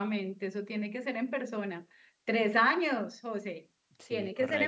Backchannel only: Yes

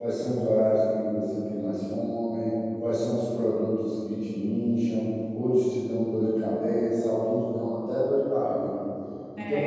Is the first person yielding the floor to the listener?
Yes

